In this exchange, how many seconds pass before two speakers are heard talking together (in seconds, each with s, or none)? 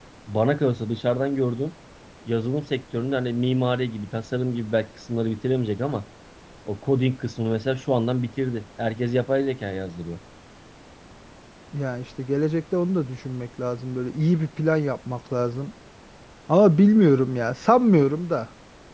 none